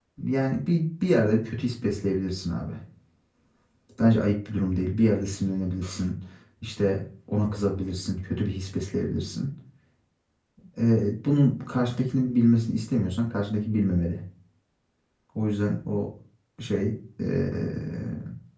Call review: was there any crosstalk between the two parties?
No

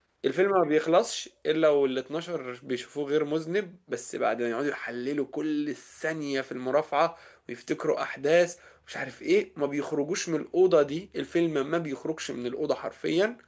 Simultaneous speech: No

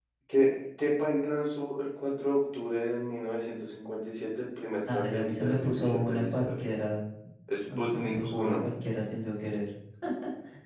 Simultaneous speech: Yes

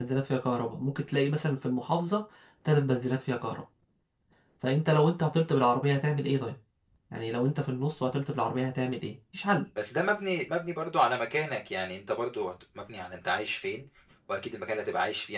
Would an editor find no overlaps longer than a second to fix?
Yes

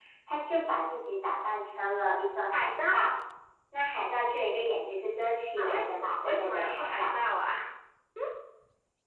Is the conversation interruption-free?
No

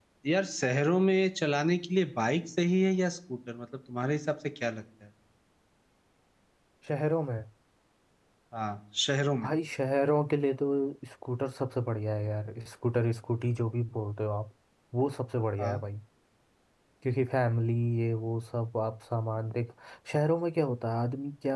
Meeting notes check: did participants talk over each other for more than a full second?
No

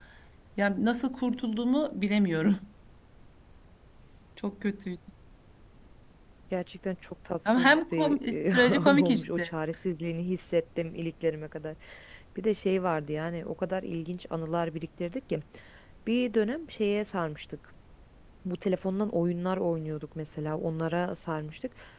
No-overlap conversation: No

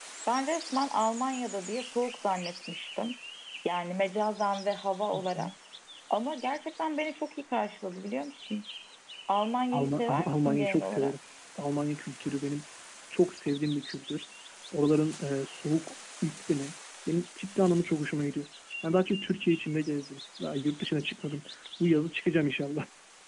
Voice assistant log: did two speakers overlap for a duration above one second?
Yes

